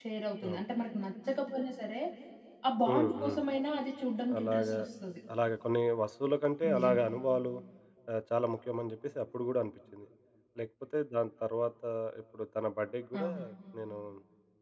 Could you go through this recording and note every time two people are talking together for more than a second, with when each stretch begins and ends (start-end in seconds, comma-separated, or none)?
none